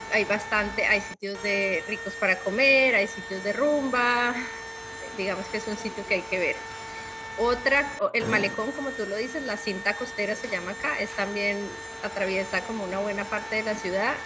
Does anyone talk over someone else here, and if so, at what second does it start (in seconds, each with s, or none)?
none